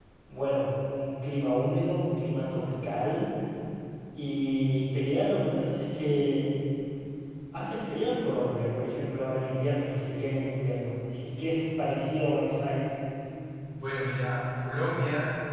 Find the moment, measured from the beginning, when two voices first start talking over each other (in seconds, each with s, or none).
none